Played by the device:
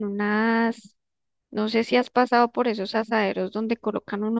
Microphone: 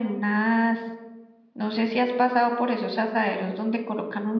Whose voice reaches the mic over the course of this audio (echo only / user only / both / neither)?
echo only